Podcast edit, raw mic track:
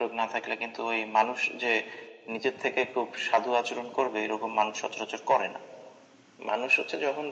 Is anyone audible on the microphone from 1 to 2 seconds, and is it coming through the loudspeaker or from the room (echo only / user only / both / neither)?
echo only